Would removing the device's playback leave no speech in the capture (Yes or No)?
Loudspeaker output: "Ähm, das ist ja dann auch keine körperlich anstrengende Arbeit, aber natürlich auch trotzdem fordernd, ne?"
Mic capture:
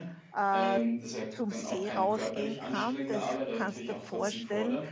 No